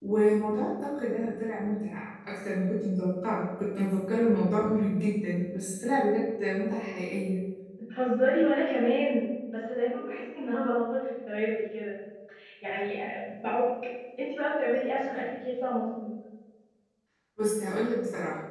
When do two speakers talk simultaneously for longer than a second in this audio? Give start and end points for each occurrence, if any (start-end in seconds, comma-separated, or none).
none